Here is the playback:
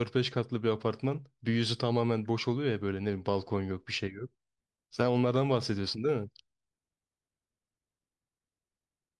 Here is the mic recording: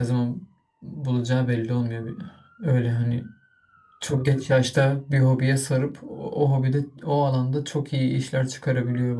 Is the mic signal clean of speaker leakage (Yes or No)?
Yes